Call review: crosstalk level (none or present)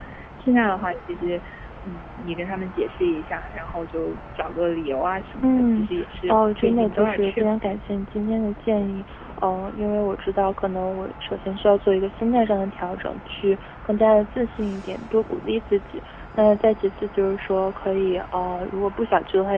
present